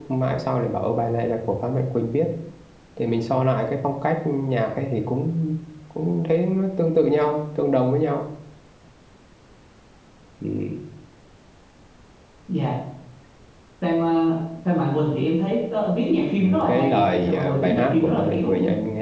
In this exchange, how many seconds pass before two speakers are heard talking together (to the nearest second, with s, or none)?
16 s